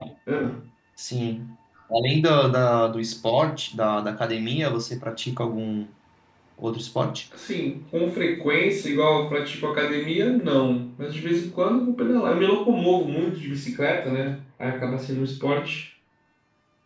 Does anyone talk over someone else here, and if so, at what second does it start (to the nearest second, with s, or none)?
none